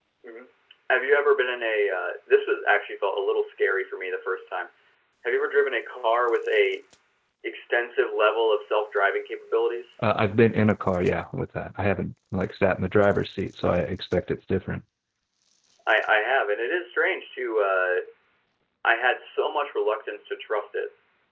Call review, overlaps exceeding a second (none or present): none